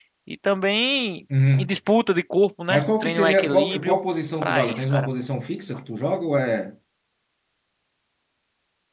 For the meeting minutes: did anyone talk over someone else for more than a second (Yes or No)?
Yes